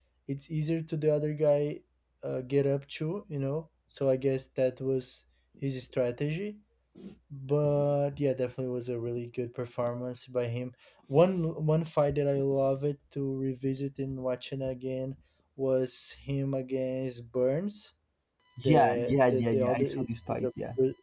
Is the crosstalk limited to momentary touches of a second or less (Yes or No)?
No